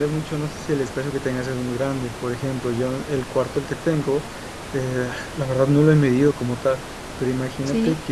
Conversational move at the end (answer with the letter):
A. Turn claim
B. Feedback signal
B